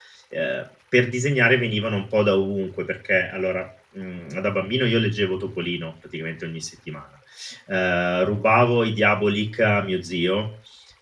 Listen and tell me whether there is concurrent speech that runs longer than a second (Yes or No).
No